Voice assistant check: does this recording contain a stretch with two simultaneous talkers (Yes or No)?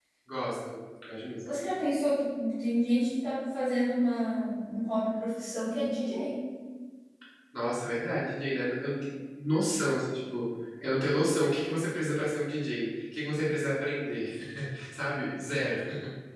No